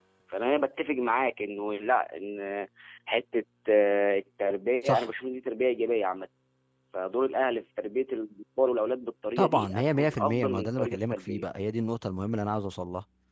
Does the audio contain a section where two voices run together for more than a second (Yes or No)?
Yes